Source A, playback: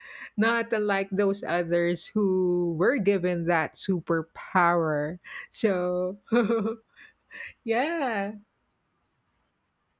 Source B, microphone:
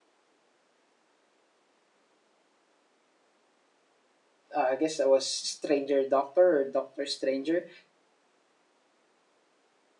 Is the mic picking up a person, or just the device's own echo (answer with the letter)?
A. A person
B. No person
A